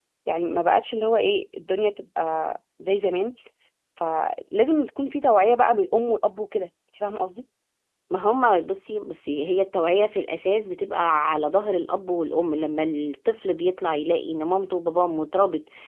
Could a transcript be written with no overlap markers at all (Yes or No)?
Yes